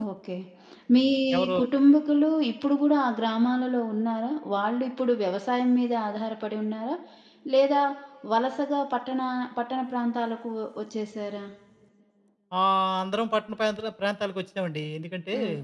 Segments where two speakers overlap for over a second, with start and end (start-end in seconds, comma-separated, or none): none